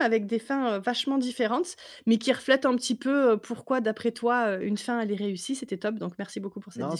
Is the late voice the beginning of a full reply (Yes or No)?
Yes